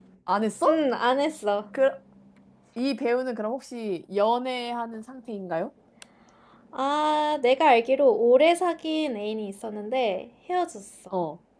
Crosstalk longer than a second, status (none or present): none